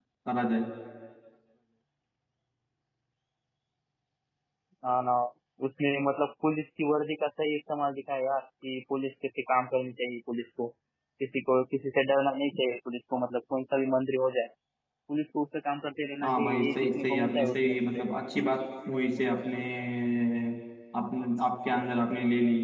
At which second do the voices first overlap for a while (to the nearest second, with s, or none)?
16 s